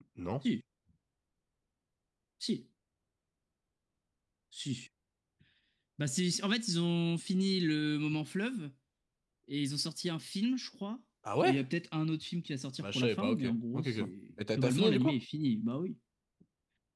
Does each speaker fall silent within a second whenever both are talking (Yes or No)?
No